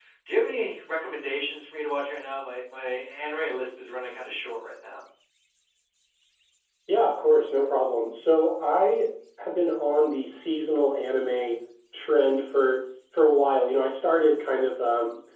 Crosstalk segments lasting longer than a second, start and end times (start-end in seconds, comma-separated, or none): none